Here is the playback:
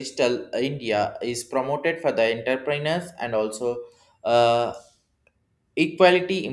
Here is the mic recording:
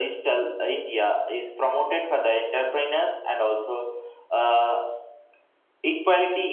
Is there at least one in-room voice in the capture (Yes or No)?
No